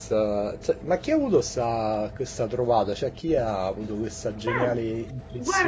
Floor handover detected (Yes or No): Yes